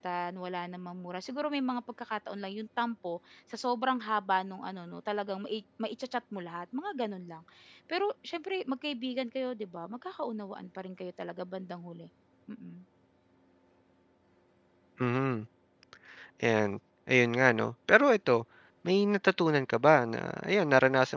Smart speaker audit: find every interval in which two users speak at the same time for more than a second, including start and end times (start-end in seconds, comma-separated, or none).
none